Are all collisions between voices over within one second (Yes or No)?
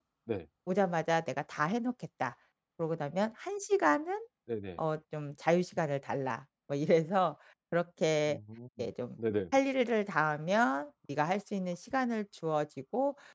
Yes